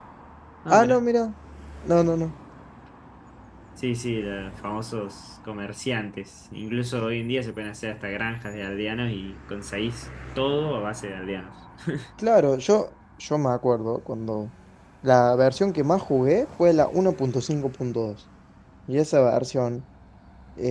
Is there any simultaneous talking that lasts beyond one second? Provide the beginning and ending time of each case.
none

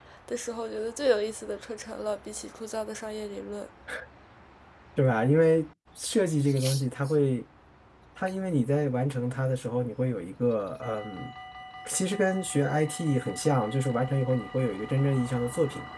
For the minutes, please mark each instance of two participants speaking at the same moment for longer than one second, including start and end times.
none

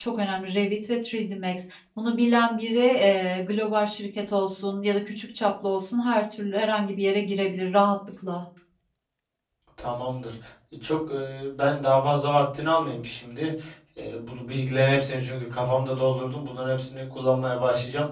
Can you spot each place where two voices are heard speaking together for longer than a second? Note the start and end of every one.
none

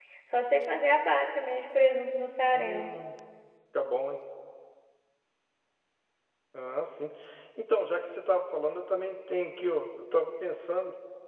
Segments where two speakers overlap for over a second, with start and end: none

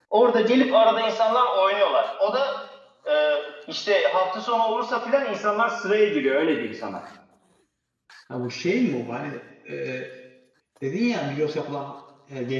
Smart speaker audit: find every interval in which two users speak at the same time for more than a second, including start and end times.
none

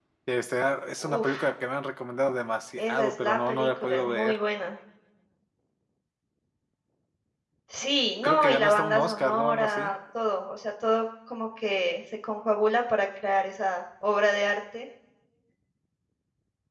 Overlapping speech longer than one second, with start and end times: 2.8-4.4, 8.2-9.9

